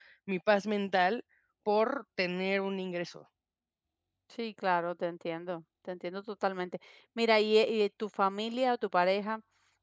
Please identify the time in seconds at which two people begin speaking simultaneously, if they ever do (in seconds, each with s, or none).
none